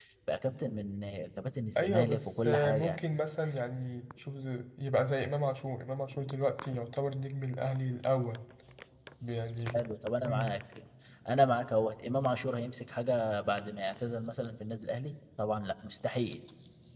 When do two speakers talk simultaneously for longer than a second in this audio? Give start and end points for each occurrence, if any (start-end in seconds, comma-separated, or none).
1.8-3.0